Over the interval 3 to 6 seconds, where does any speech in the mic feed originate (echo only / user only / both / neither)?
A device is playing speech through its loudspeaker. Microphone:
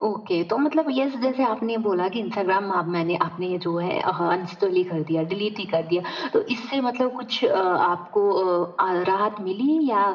echo only